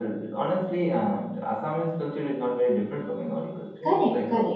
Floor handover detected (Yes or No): Yes